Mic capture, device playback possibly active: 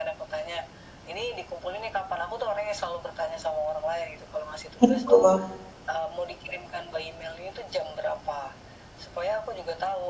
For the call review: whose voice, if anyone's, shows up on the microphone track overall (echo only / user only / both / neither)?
both